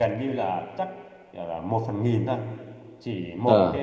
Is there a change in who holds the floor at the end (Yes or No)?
No